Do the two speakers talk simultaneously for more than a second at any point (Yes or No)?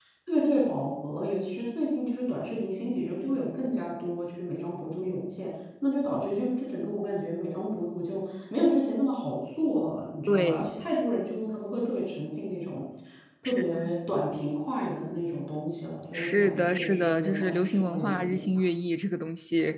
Yes